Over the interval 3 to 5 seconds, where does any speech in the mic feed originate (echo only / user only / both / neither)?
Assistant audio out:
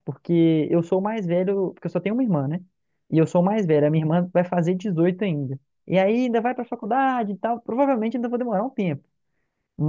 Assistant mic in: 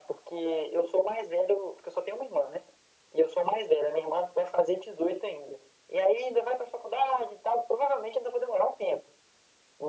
echo only